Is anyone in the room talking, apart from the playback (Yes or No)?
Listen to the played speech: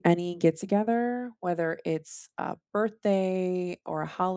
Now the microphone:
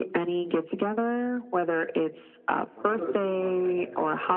Yes